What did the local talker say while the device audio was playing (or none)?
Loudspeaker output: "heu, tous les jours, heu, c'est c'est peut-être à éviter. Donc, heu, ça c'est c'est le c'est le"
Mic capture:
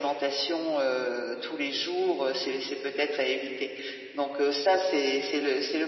none